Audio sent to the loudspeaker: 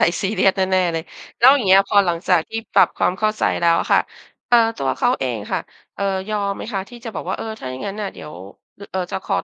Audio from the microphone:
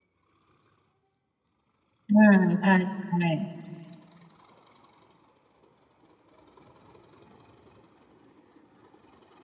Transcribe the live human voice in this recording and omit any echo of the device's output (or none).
อา ใช่ ๆ